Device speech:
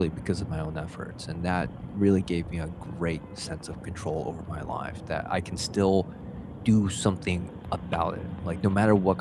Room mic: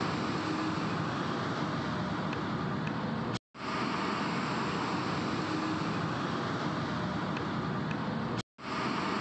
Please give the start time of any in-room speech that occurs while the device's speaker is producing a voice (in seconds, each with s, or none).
none